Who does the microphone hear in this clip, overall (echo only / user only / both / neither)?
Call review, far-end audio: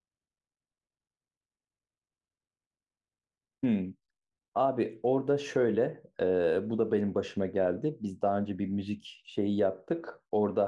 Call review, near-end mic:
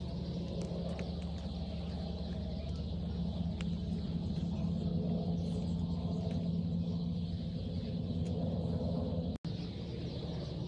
neither